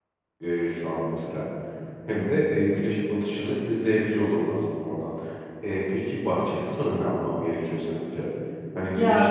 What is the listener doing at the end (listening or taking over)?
listening